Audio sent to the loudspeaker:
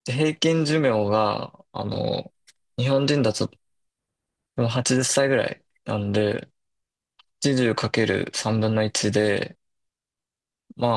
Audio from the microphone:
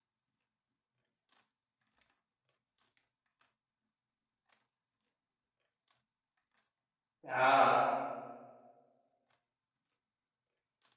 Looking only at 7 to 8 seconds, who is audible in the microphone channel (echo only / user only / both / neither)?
user only